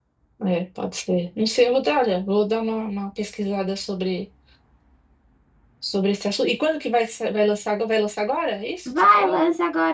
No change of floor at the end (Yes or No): No